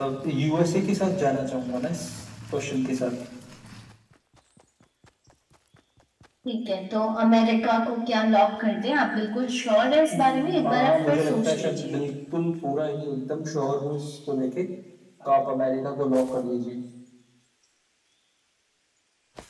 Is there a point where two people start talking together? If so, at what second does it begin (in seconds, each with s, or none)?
10.1 s